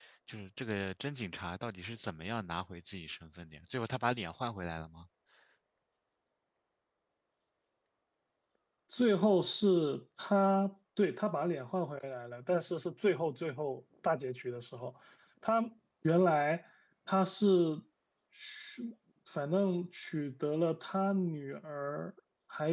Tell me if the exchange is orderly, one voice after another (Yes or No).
Yes